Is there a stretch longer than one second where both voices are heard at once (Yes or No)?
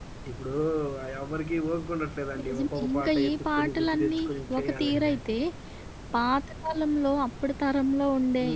Yes